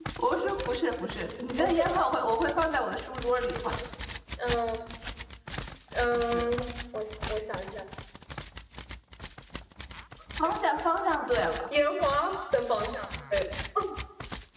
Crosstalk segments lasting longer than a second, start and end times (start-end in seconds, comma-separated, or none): none